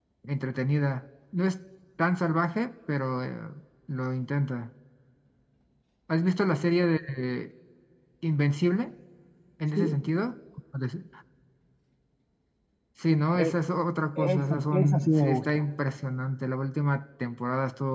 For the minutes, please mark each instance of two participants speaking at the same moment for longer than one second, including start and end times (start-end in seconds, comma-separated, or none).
14.2-15.6